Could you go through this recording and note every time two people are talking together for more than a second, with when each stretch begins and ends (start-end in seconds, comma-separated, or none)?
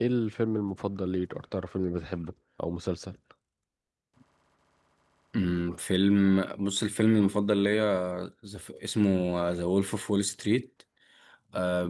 none